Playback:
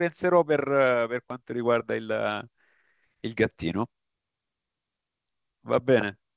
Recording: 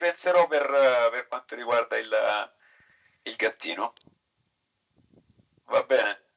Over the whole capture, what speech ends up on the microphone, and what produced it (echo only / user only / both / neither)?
echo only